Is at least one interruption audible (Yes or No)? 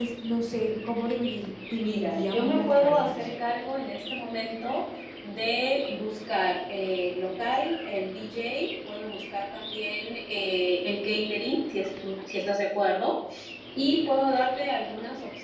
Yes